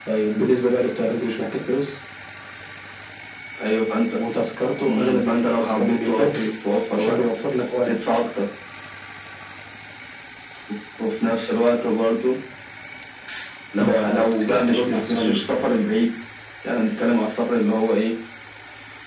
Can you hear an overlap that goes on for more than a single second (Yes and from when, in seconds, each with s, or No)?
Yes, from 4.9 s